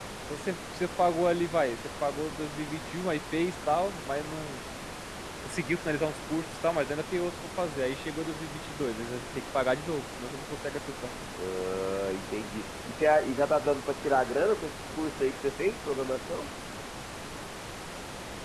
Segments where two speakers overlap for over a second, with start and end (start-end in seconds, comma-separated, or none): none